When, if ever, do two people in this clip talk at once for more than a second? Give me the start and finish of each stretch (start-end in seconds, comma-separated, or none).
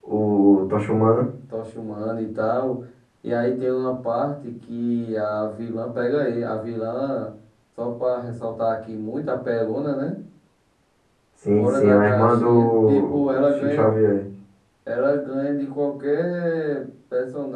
11.6-13.8